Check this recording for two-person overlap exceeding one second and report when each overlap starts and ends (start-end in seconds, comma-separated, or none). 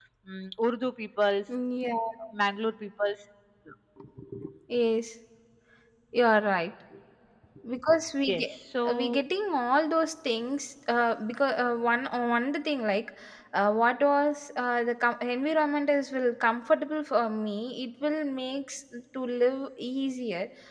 none